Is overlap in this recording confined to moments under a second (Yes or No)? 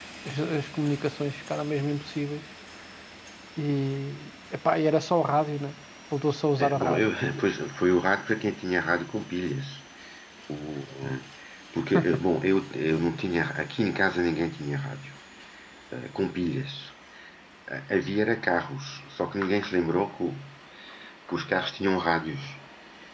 Yes